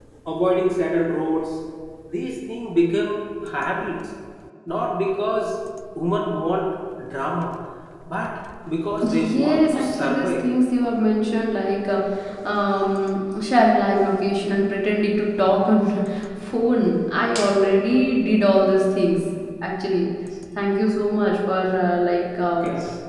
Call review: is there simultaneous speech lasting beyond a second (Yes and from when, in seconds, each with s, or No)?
Yes, from 9.1 s